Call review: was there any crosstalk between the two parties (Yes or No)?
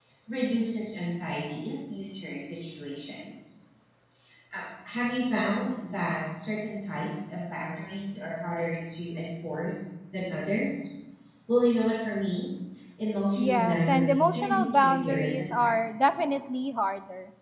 Yes